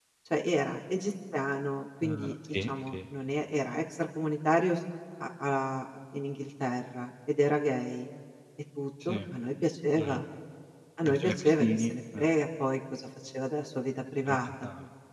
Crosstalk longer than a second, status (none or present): present